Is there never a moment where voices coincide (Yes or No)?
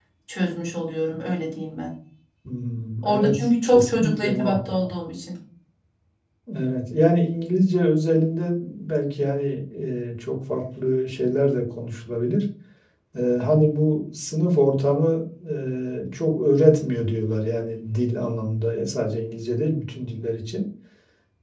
No